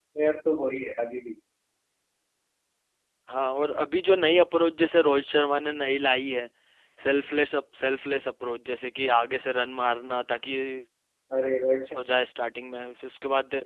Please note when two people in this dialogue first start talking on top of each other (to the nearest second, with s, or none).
none